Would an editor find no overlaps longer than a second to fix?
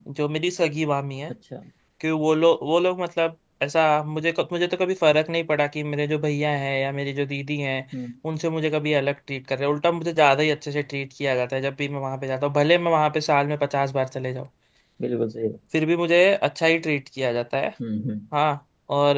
Yes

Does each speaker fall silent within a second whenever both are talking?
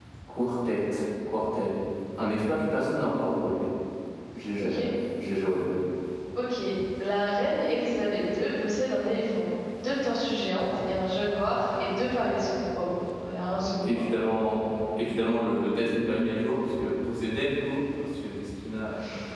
Yes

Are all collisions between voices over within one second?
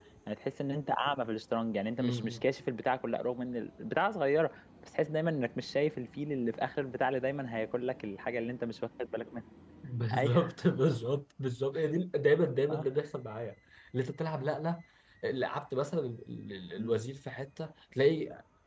Yes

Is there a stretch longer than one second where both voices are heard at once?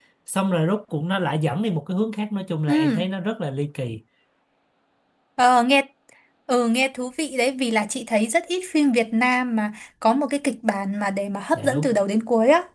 No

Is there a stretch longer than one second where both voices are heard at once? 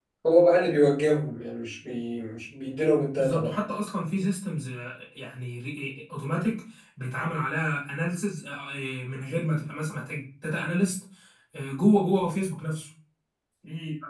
No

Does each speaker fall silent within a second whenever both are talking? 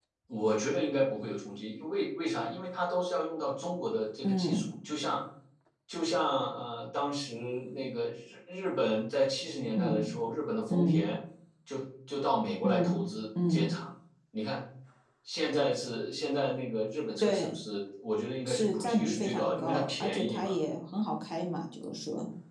No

